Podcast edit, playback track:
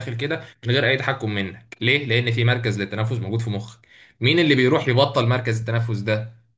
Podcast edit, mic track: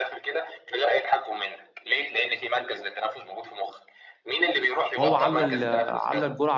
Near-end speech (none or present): present